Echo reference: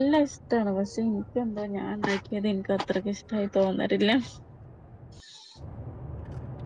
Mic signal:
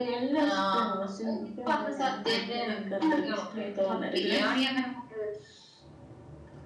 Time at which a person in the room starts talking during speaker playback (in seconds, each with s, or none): 0.5 s